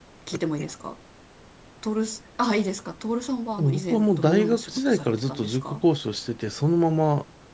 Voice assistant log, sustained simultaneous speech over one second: present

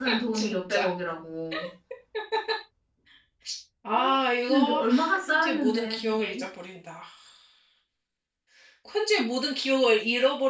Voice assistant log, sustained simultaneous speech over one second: present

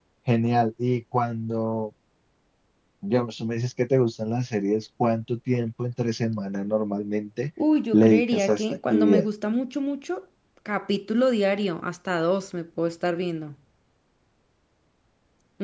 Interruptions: present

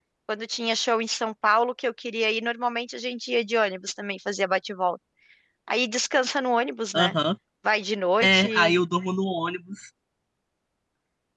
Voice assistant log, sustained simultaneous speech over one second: none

